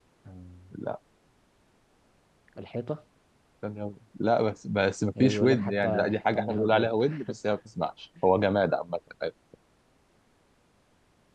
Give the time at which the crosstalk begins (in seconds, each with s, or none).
5.2 s